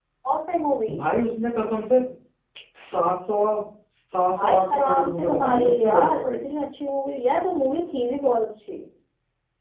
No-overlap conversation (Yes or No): No